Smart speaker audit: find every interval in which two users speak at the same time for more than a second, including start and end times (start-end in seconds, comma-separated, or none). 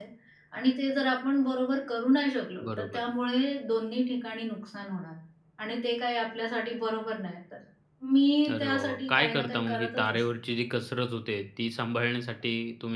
8.5-10.2